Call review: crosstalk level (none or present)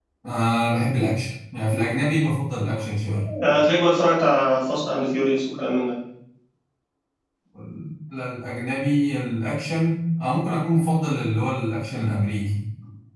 none